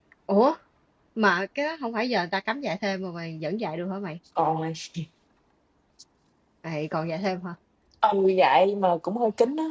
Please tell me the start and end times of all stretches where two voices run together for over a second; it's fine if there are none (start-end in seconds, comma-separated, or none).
none